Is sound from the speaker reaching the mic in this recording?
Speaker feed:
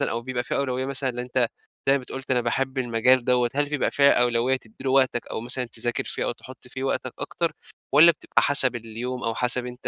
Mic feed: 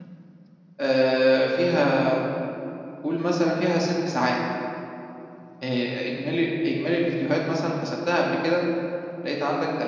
No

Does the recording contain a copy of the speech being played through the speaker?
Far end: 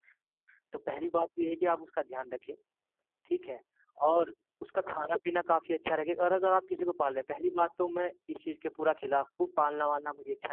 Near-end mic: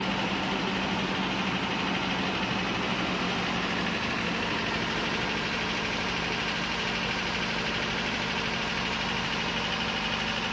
No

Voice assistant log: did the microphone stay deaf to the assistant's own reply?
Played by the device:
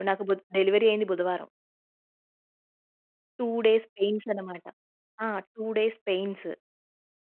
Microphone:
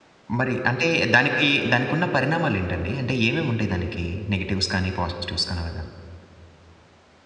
Yes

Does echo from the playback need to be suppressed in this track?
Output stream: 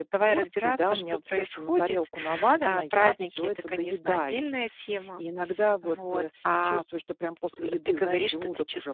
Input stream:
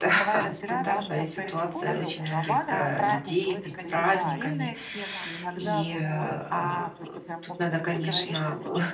Yes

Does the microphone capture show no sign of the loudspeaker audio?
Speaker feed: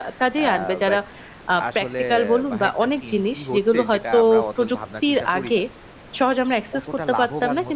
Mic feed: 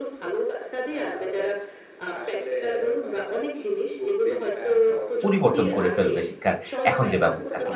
No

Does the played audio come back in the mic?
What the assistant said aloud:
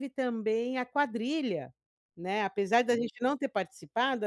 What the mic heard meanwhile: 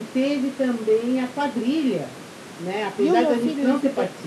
Yes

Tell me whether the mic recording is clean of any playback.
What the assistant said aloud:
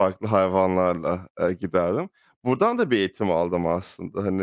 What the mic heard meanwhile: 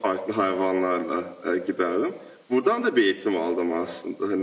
No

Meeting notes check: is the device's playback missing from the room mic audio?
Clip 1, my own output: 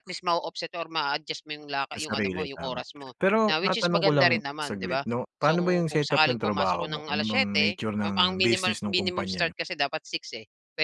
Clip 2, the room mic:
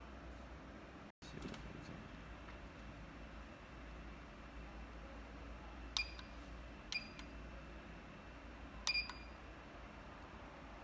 Yes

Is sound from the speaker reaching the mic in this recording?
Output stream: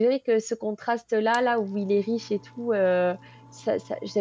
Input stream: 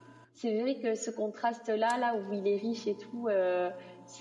Yes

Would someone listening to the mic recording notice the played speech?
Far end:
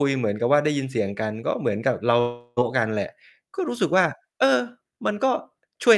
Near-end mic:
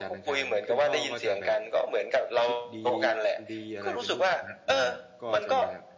Yes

